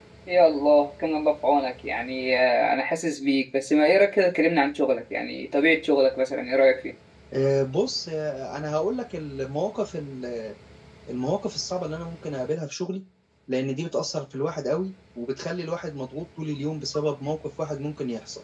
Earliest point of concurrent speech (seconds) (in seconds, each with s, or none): none